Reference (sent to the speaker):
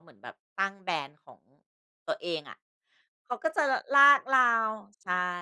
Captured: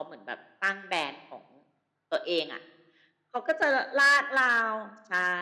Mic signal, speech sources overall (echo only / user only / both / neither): echo only